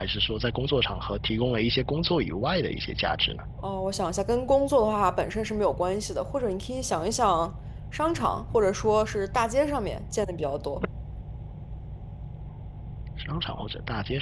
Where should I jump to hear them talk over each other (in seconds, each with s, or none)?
none